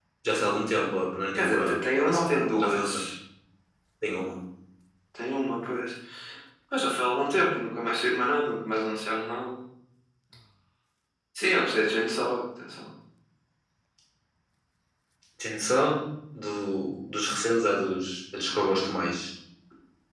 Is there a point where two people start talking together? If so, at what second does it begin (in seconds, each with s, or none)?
1.4 s